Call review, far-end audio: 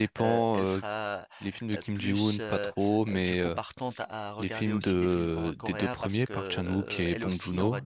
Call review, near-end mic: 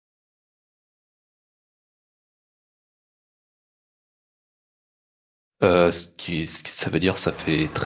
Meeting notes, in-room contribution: present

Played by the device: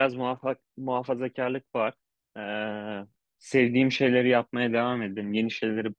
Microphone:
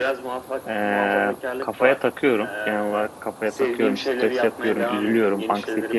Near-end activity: present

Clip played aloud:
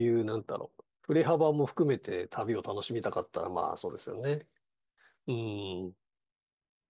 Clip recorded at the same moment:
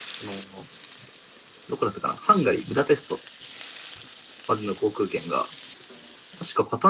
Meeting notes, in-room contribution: present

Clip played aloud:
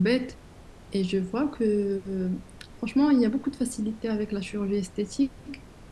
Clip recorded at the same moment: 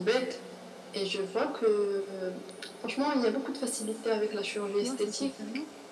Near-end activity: present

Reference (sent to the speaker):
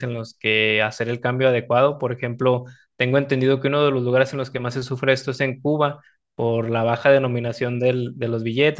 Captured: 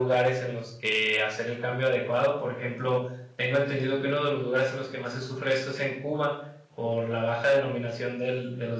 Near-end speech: none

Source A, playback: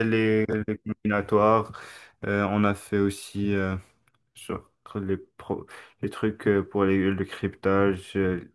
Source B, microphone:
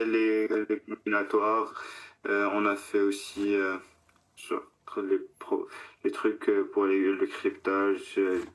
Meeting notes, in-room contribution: none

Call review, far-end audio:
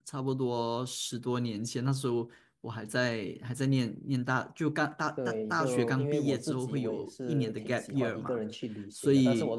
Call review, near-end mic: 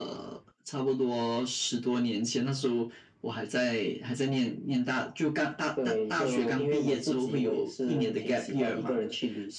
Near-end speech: none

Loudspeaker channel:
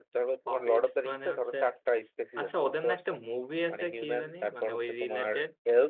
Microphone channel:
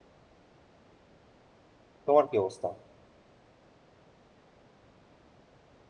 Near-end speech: present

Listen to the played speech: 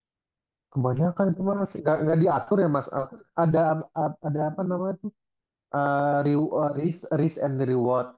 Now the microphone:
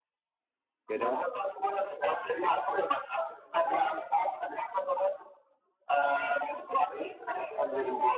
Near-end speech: present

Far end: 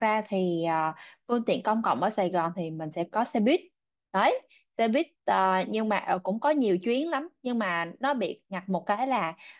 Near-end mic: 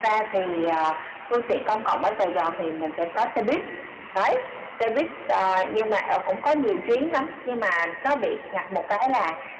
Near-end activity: none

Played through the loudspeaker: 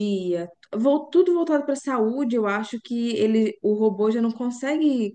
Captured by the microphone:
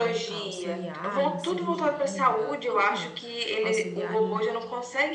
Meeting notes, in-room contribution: present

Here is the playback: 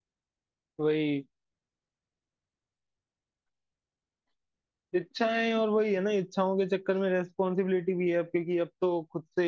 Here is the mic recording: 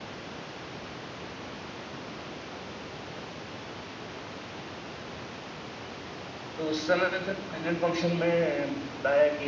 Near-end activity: present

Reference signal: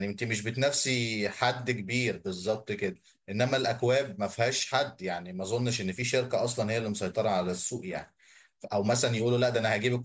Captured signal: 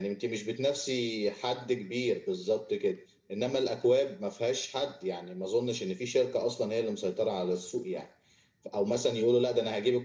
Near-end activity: none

